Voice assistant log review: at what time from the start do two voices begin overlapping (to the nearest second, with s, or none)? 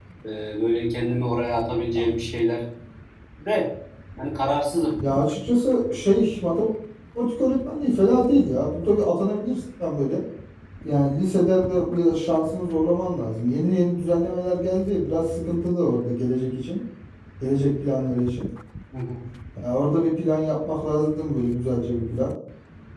none